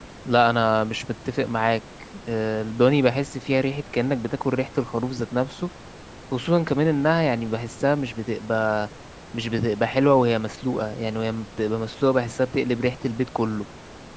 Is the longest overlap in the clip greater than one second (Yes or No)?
No